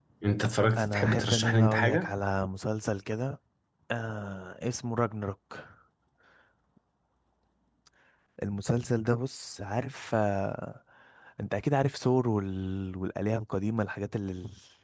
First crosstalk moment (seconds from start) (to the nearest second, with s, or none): 1 s